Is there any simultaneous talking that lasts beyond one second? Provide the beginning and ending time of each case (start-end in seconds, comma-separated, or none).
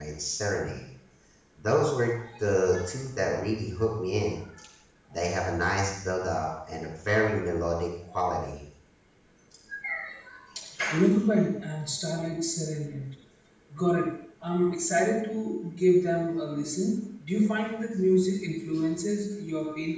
none